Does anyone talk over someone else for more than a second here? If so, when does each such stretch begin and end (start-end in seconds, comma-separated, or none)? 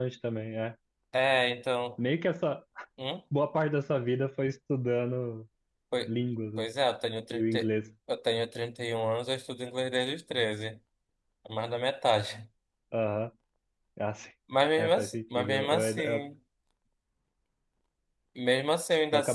14.8-16.2